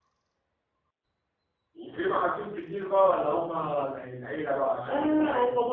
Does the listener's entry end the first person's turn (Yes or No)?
Yes